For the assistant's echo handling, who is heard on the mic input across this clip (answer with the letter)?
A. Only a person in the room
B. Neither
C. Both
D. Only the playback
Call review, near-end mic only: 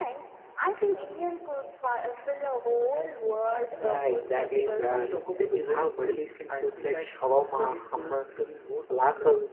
C